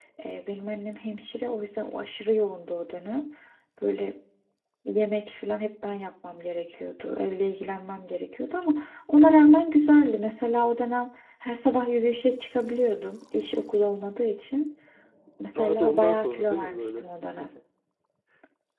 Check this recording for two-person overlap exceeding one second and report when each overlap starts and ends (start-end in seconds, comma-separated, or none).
15.6-17.1